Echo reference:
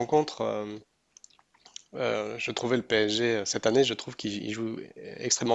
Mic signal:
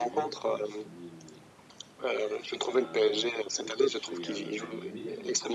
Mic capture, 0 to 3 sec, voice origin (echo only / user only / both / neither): both